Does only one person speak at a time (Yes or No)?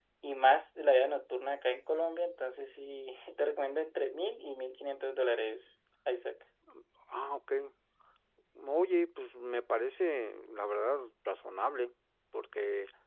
Yes